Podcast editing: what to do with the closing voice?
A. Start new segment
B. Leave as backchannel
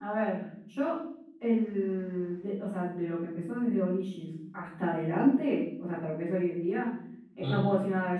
B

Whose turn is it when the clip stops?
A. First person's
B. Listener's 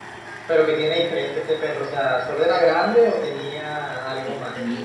B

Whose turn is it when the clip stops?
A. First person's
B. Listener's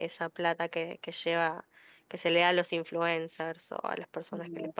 B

